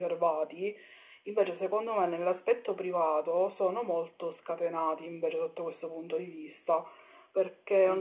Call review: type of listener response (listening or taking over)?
taking over